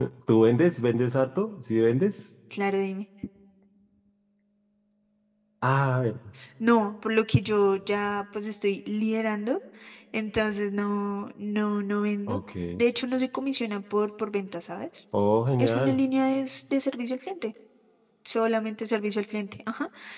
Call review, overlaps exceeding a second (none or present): none